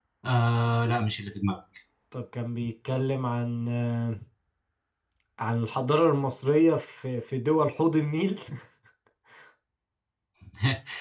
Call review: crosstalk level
none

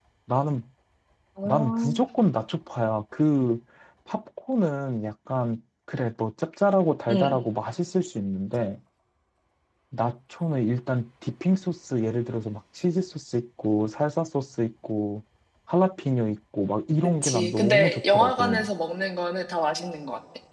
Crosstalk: present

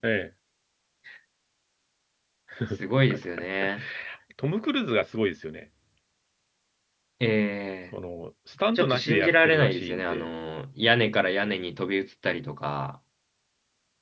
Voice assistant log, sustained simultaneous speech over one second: present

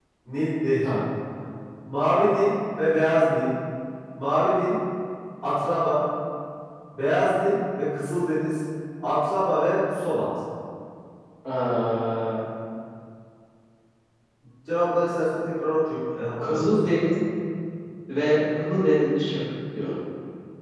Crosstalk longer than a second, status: none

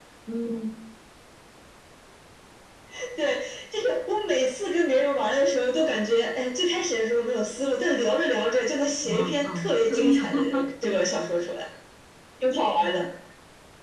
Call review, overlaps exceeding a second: present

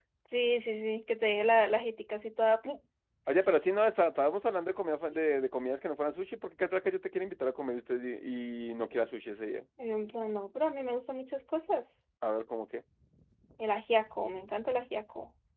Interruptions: none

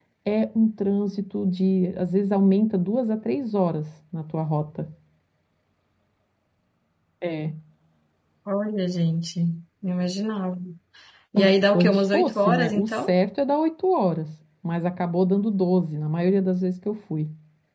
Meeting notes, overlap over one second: present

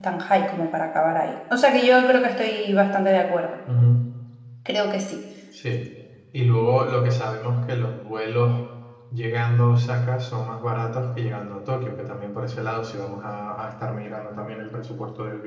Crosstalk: none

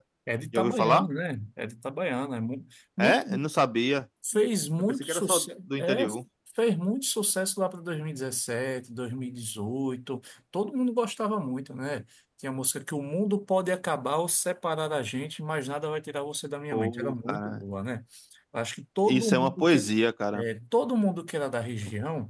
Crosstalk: present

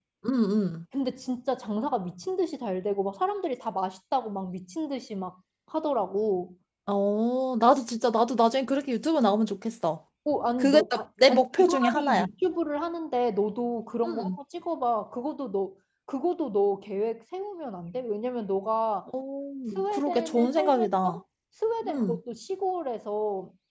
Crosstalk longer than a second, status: present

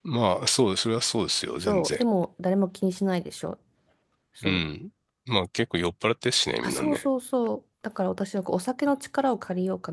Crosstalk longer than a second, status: none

